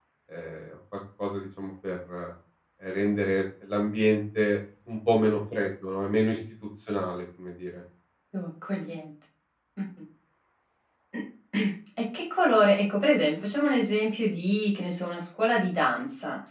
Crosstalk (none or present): none